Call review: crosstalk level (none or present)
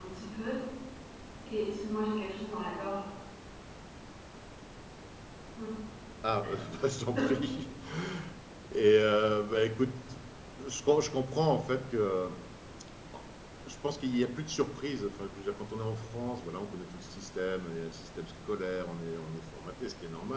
none